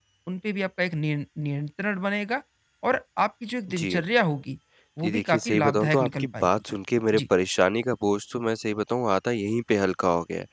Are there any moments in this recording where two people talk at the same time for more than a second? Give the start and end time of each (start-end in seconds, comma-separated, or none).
5.0-6.5